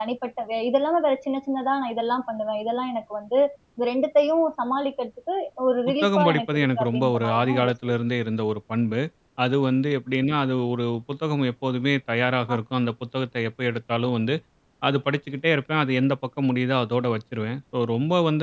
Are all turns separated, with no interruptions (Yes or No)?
No